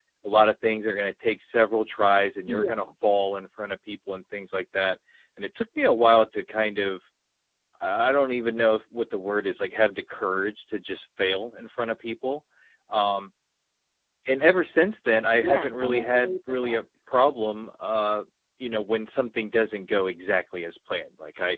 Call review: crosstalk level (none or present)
present